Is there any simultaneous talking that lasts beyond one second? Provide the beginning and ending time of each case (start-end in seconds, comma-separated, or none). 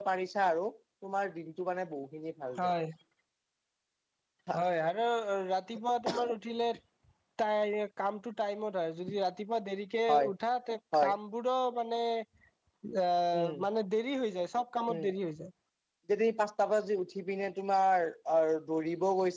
none